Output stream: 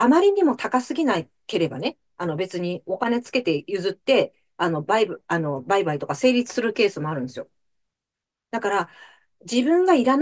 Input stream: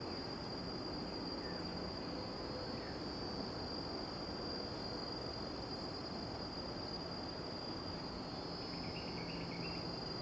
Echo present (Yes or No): No